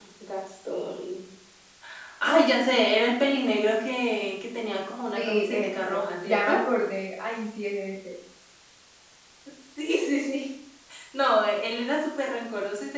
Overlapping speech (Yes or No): Yes